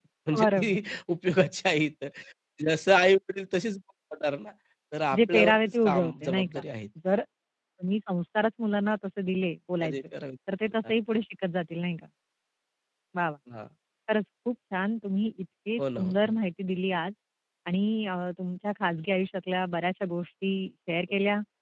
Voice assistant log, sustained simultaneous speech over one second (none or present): present